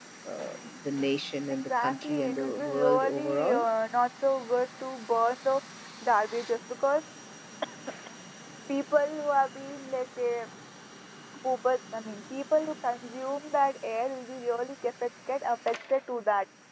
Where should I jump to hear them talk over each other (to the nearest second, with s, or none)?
2 s